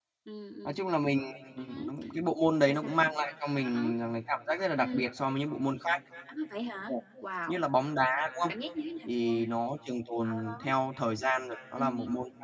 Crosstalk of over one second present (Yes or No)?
No